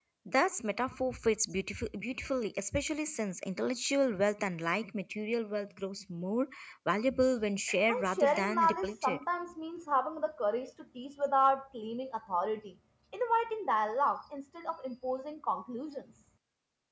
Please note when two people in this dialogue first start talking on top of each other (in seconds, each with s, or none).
7.9 s